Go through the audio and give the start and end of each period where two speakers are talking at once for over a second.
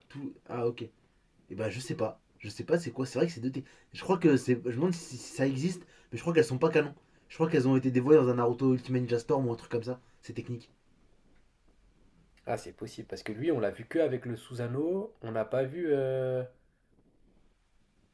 none

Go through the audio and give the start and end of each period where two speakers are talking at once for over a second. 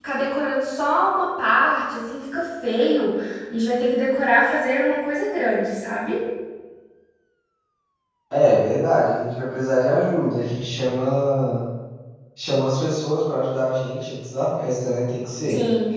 none

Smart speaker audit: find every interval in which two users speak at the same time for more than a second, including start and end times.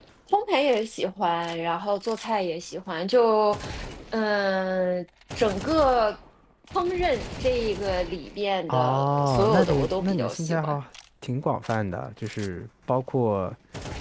8.7-10.8

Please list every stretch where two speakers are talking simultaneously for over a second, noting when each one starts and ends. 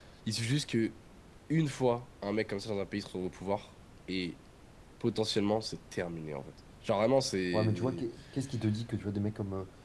none

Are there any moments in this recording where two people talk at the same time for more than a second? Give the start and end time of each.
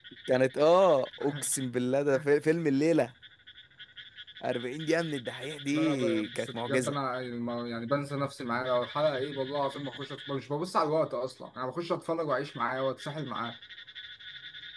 5.7-6.9

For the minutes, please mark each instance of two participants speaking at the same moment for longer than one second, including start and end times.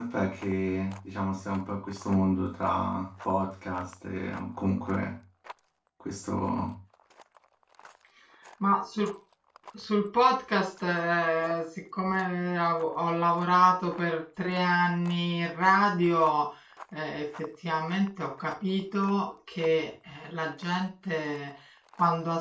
none

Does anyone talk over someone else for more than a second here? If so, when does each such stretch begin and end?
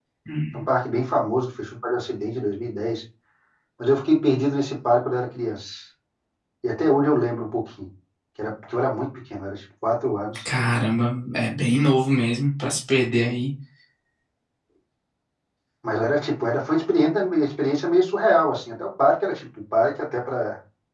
none

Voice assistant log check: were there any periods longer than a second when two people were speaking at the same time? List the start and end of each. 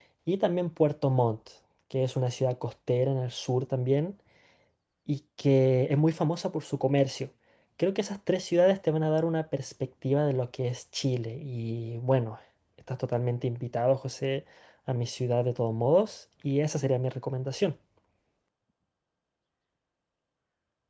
none

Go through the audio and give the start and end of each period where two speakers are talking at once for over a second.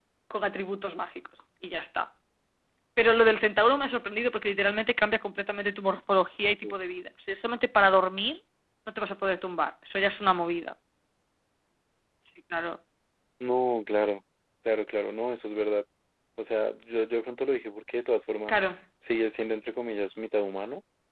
none

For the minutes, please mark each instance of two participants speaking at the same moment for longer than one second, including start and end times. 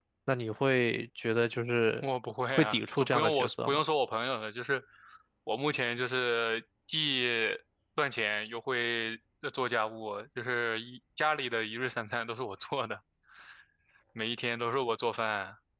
2.5-3.8

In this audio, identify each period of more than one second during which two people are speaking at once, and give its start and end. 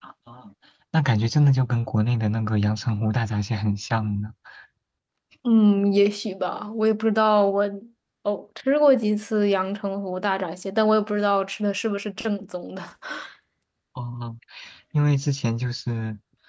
none

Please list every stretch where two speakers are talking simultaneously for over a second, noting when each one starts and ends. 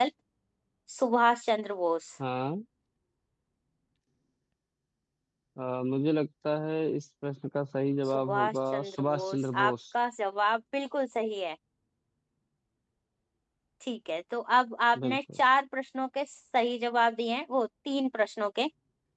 8.1-9.7

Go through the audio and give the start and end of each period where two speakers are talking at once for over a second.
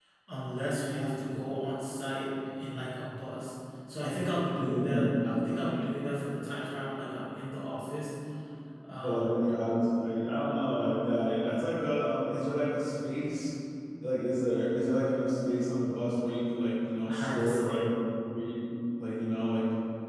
none

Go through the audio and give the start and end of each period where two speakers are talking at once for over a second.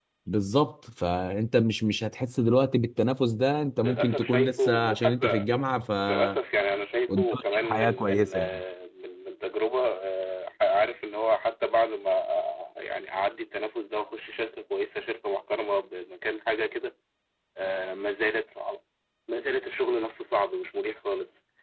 3.8-5.5, 7.1-8.6

